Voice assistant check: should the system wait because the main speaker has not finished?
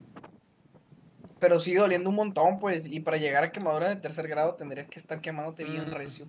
No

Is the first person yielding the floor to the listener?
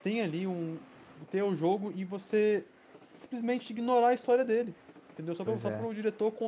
No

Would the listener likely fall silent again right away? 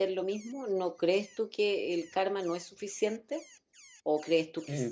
No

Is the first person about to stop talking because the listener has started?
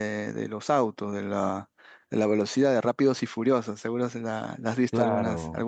Yes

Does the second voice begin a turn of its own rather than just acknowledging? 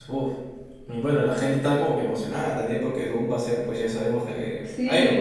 Yes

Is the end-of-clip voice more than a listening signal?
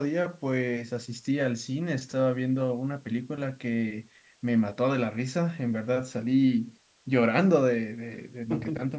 No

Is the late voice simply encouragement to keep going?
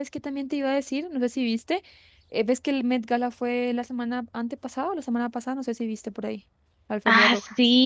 No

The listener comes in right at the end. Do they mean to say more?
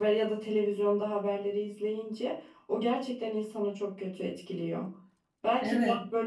No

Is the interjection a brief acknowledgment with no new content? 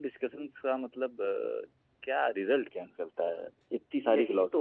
No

